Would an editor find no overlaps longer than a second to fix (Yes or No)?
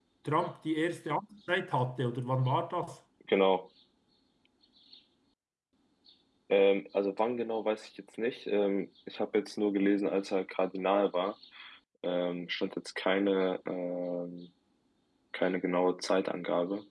Yes